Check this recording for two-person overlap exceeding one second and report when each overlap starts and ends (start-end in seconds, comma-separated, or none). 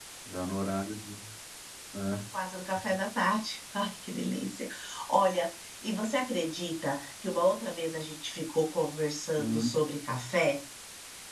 none